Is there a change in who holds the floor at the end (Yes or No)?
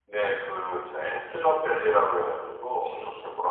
No